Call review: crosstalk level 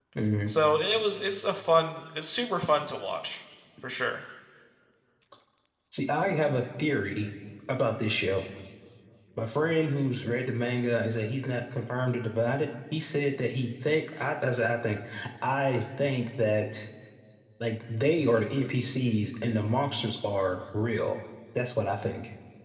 none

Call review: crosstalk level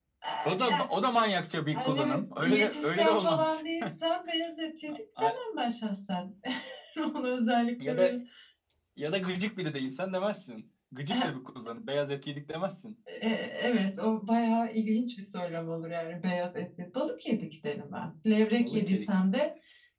present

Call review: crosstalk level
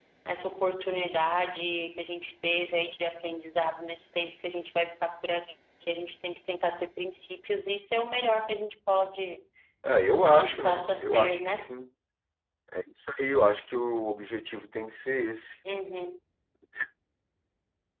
present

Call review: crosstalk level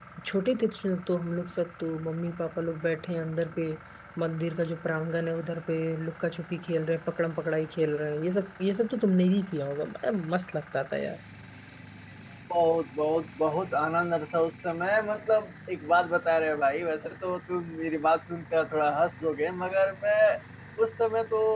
none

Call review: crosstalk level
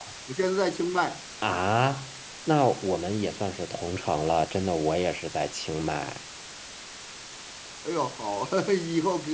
none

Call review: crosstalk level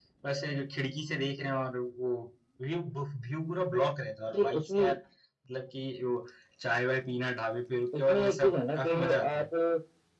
present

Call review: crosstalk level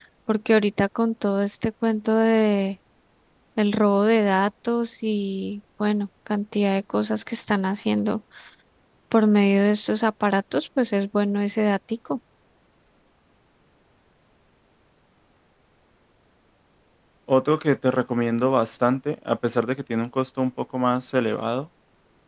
none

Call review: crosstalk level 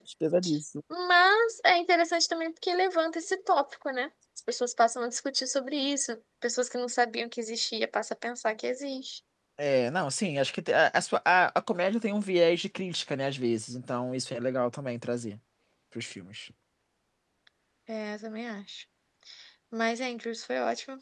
none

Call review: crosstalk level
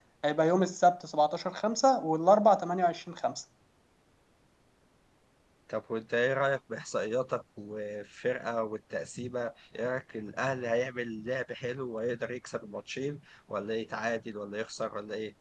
none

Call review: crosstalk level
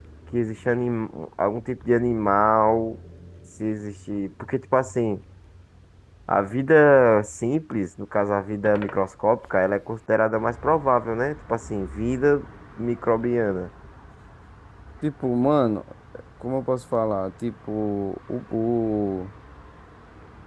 none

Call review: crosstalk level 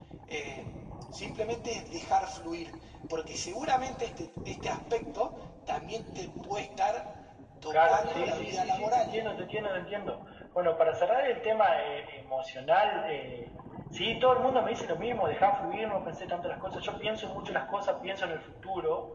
present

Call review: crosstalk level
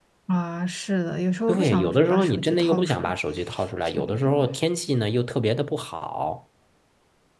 present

